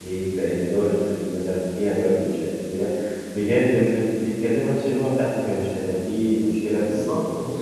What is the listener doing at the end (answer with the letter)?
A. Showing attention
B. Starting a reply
B